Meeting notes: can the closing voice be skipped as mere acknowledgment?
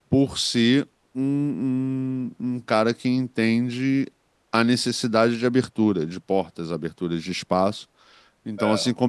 Yes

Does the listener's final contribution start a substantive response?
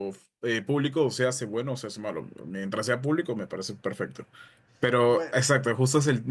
No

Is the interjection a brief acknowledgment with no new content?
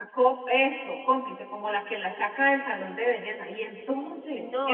No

